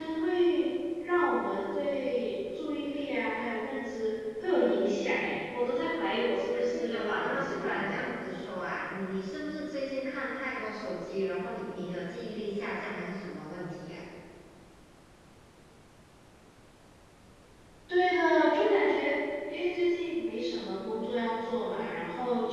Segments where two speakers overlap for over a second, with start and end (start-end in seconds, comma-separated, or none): 6.7-8.0